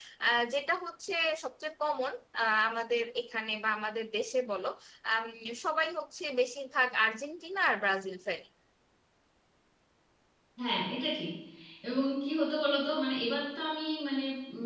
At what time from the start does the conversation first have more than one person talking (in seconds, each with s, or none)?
none